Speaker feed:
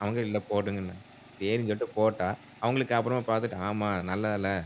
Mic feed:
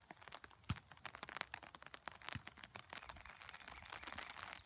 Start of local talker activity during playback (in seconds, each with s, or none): none